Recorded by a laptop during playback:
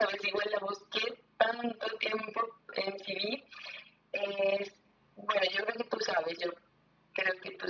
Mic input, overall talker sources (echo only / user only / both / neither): echo only